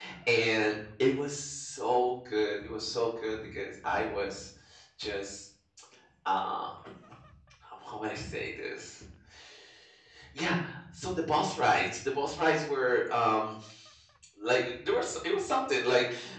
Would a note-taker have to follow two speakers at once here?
No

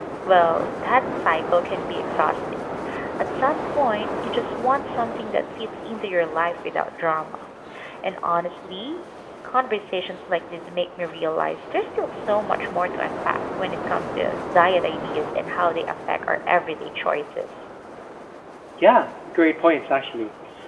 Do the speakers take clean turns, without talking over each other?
Yes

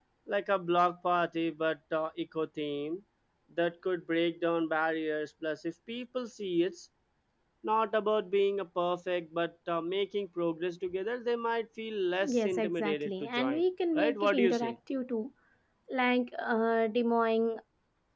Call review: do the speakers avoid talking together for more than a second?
No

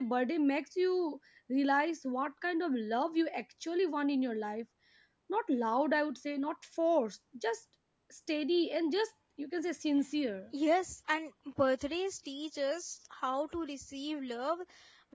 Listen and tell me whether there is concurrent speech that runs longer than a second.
No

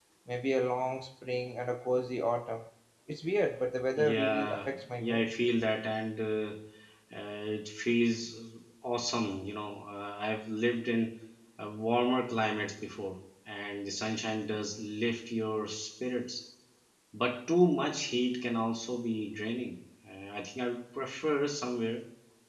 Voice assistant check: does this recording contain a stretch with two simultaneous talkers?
Yes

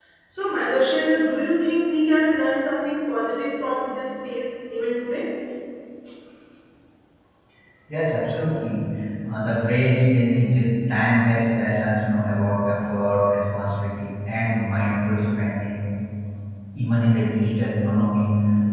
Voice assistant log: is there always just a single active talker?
Yes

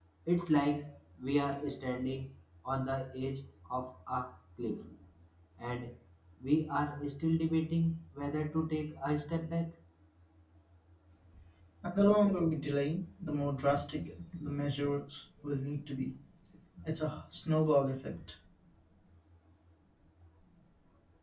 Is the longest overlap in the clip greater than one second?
No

